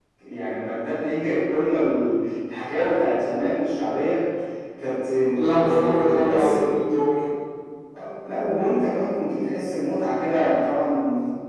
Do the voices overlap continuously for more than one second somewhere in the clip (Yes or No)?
Yes